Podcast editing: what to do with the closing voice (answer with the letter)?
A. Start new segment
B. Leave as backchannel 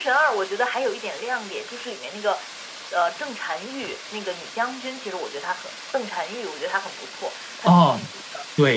A